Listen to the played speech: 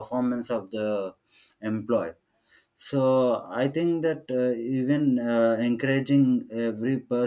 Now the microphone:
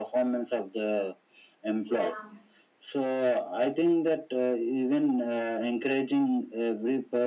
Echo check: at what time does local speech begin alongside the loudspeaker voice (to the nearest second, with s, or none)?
2 s